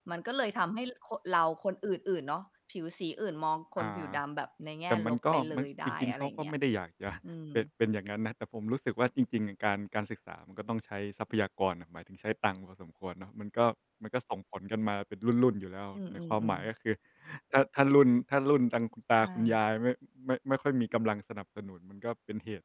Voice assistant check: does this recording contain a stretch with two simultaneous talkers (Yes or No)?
Yes